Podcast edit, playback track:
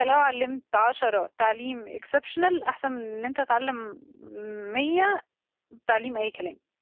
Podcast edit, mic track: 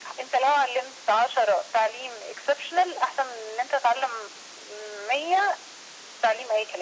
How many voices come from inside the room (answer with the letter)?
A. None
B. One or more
A